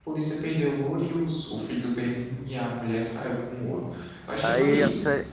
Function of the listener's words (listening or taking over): taking over